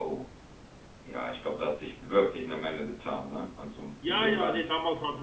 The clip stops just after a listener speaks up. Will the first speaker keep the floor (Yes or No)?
No